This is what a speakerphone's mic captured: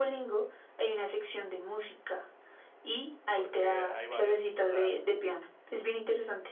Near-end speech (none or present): present